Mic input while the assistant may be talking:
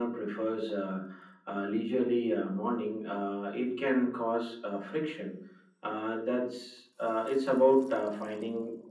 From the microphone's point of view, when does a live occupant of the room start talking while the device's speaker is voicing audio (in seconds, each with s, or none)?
none